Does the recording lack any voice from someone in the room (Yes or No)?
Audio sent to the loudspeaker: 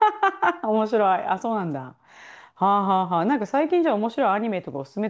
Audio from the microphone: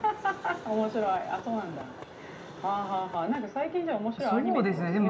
No